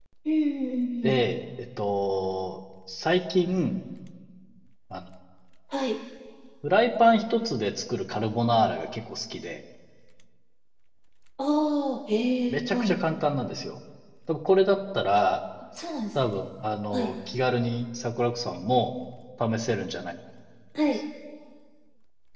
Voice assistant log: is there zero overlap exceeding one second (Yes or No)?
Yes